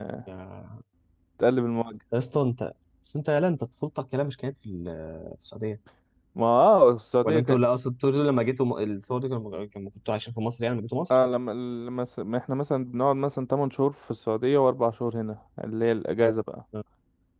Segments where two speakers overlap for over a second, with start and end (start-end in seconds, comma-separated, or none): none